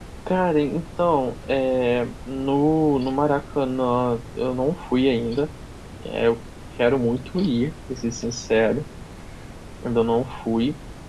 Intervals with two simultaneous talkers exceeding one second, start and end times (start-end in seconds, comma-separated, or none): none